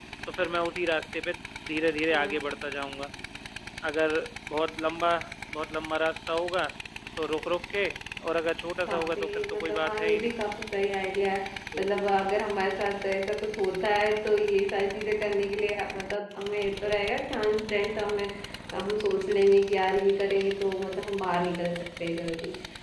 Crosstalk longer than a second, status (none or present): present